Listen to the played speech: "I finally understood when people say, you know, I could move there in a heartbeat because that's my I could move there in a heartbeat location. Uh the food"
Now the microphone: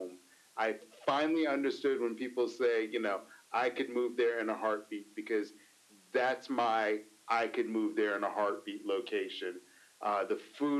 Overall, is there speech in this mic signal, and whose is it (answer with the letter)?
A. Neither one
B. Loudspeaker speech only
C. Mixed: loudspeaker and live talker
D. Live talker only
B